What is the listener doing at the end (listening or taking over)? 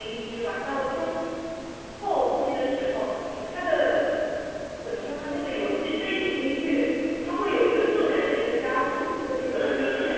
taking over